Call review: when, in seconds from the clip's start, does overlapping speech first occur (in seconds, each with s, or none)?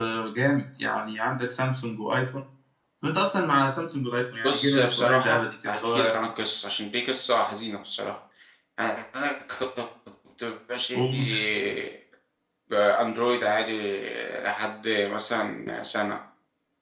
4.4 s